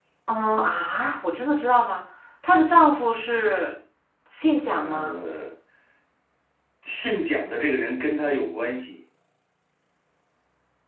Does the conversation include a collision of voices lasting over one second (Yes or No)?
No